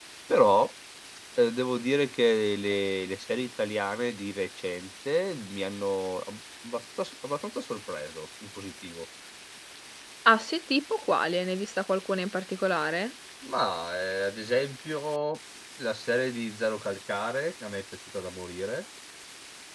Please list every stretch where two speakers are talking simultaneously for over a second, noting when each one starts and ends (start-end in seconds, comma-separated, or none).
none